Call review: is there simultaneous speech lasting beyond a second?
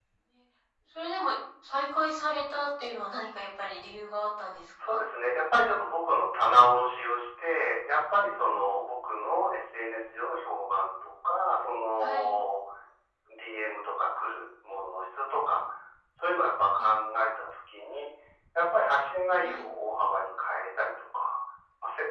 No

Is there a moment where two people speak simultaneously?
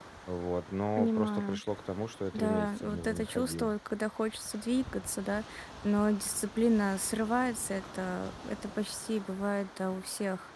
Yes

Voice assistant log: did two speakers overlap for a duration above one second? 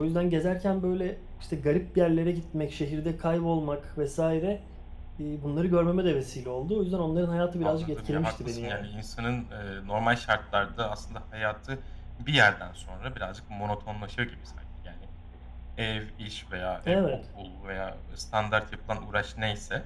Yes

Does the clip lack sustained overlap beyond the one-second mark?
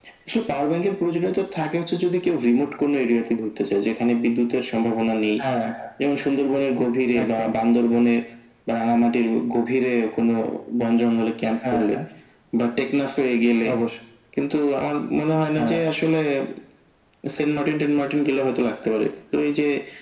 Yes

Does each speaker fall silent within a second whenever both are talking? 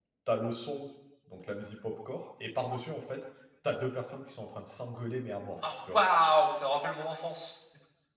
Yes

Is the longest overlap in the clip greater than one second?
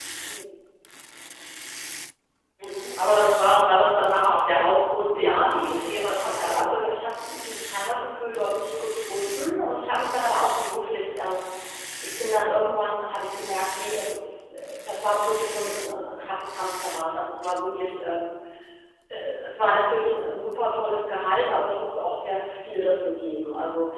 Yes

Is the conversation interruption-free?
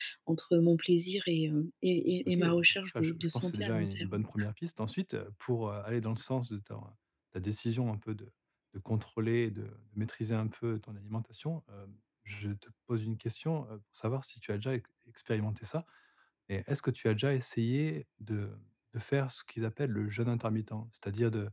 No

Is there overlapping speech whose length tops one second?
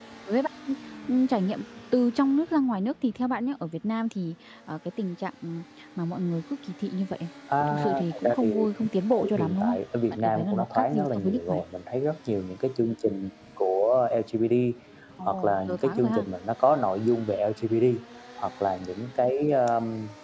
Yes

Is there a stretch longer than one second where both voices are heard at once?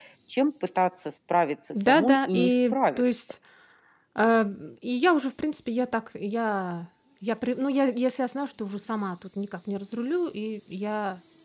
Yes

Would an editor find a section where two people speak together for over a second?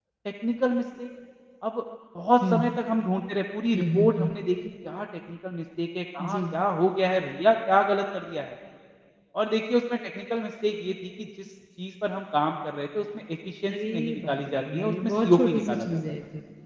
Yes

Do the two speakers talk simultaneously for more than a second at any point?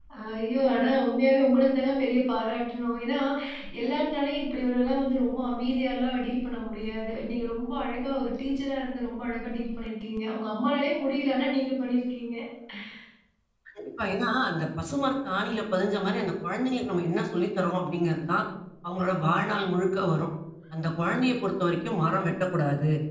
No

